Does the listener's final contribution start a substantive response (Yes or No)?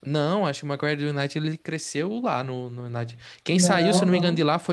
No